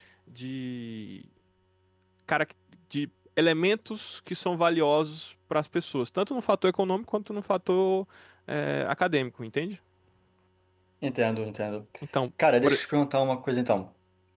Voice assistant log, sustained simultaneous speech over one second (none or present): none